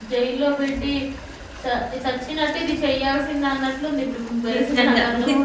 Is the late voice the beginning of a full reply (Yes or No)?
Yes